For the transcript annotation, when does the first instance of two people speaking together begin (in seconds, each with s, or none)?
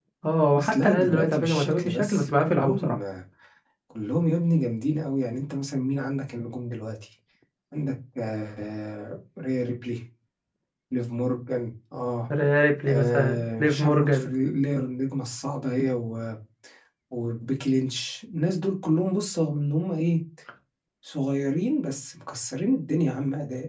0.5 s